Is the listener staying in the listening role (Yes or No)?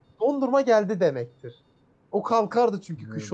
No